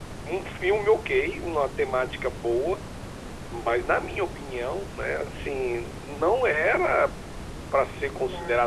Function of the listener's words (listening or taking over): listening